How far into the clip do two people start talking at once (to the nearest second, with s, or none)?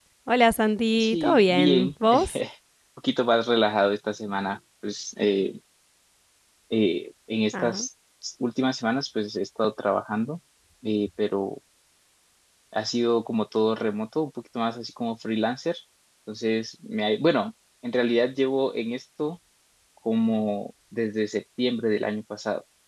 1 s